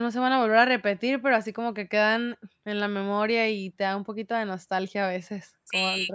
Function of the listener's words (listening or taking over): taking over